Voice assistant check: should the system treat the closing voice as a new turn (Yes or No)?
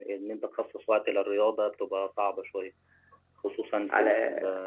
No